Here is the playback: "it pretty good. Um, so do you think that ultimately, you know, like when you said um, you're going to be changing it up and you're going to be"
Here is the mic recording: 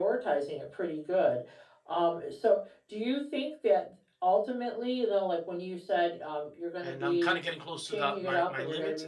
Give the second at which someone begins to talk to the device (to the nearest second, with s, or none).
7 s